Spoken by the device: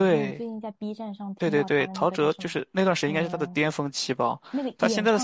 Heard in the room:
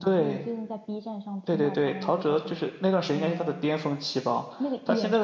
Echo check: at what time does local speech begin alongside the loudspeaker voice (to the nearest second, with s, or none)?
none